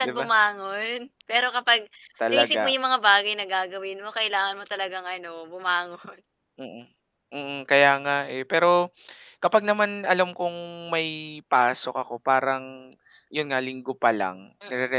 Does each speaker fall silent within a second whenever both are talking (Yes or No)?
Yes